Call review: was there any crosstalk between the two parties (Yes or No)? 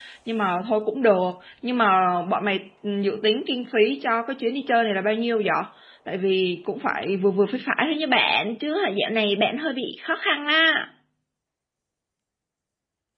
No